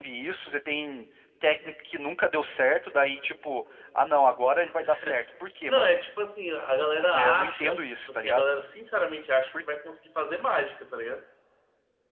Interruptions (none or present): present